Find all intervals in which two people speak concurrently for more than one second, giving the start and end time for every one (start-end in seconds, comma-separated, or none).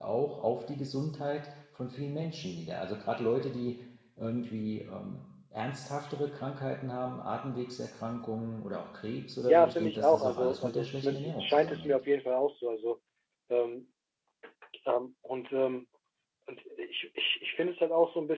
9.5-11.9